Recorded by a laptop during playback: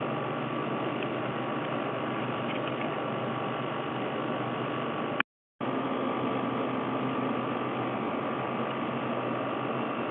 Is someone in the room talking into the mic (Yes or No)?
No